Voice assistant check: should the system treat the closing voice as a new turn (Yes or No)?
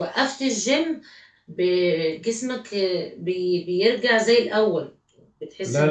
Yes